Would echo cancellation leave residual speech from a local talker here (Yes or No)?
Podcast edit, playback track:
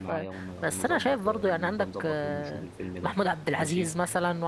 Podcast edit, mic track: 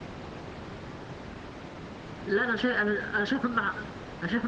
Yes